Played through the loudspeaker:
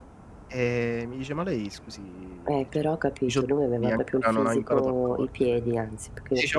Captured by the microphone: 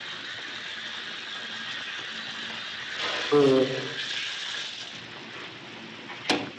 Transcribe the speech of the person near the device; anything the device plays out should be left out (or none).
Uhm.